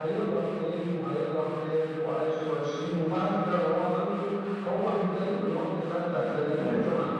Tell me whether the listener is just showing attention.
Yes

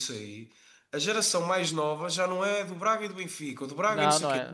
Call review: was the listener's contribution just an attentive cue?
No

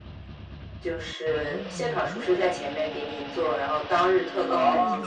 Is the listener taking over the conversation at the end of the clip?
No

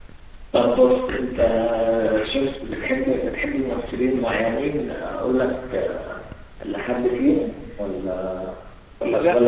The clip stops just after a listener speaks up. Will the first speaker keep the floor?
No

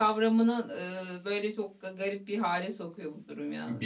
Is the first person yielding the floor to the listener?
Yes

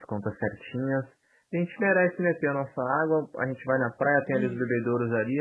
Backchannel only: Yes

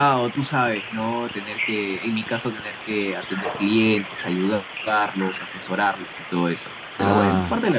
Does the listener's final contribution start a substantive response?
Yes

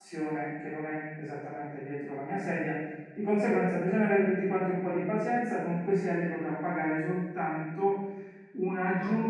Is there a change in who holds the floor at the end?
No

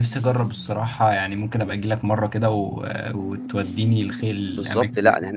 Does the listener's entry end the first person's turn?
Yes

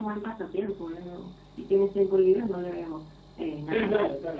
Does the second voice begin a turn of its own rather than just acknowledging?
Yes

